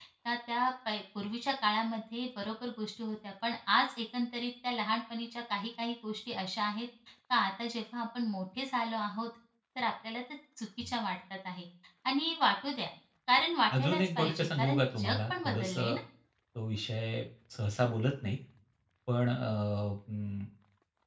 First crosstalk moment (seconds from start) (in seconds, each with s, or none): 13.8 s